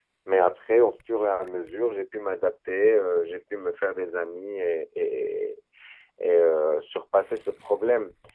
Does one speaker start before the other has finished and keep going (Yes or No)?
No